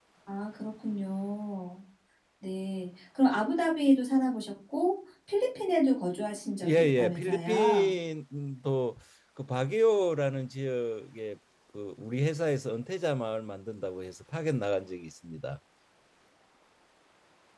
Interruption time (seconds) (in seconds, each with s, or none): 6.6 s